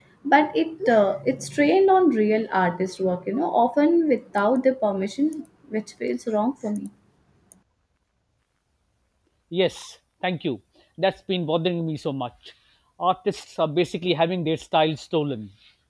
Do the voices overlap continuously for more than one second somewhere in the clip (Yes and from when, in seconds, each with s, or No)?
No